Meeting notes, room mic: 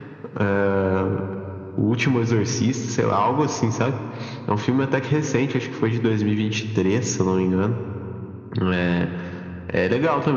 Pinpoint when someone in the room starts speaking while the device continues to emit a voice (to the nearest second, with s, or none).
none